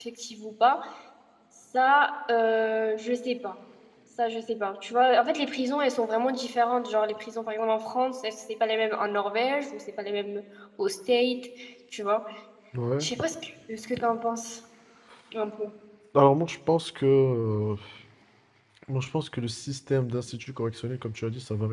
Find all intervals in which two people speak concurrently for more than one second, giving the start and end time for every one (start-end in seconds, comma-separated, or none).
none